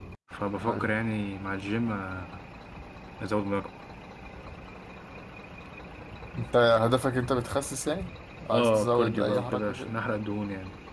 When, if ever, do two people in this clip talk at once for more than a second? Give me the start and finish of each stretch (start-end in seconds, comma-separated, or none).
8.5-9.9